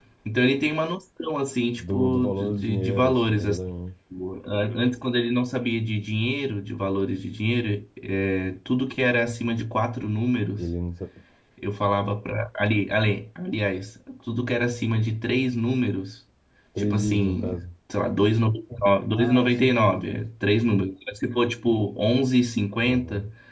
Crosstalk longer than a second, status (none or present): present